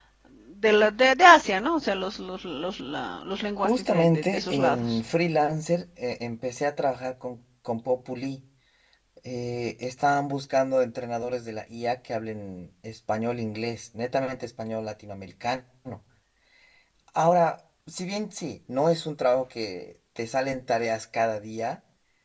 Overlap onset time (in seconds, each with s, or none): 3.6 s